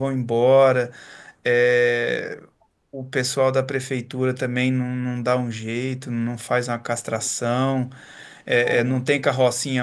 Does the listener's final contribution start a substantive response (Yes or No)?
No